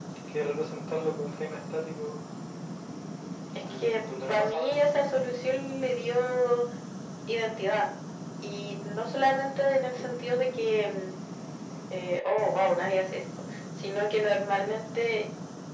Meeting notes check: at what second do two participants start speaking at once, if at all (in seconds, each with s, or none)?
3.6 s